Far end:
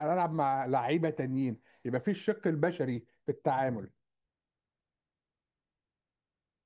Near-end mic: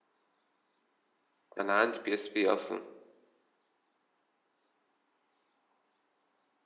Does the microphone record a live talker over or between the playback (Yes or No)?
Yes